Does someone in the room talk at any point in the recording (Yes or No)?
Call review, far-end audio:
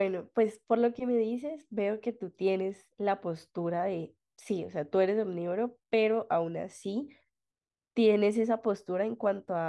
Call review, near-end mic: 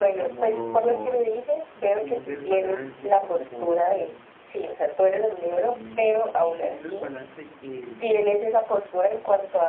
Yes